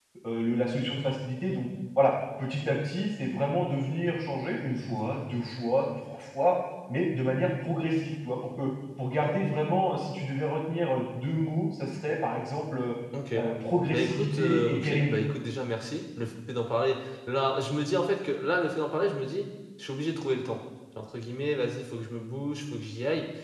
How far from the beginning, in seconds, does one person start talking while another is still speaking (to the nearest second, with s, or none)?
14 s